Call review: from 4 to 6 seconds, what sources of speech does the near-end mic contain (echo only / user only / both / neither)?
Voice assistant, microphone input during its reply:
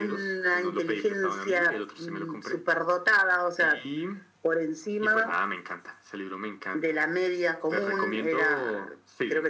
echo only